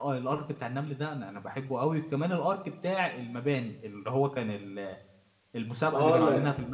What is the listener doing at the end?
taking over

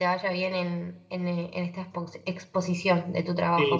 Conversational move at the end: taking over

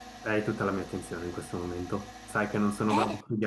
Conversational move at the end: listening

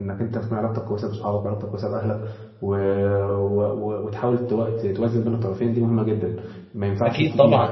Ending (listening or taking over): taking over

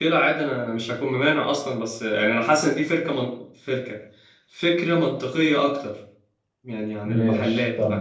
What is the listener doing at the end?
taking over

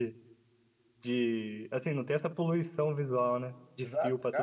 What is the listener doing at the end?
taking over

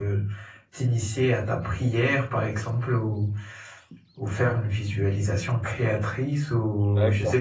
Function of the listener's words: listening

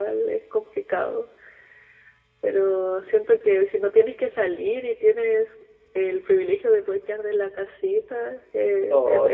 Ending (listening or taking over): taking over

